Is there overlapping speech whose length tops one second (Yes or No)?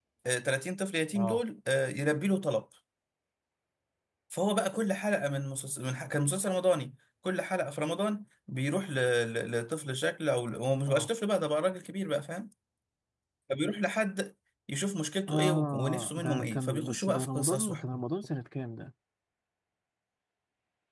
Yes